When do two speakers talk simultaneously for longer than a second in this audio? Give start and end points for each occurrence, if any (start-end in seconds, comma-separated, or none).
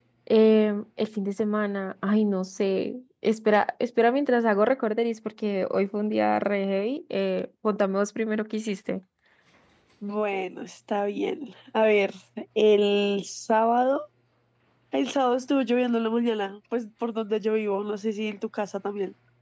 none